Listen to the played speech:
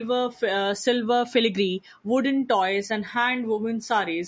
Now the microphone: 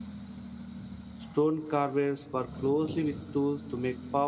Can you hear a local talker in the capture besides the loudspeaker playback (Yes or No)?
Yes